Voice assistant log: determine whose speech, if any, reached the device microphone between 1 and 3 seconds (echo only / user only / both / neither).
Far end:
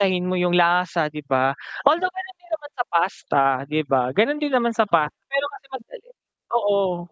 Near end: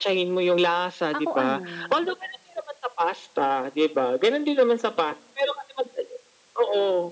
both